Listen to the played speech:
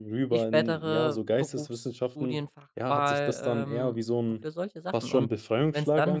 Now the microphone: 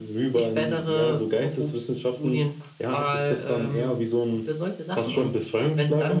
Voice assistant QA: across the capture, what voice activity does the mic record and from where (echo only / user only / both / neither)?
echo only